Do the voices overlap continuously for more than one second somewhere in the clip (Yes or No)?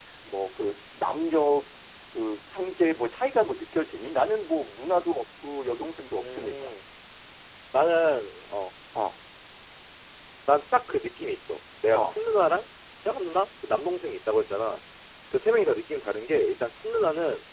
No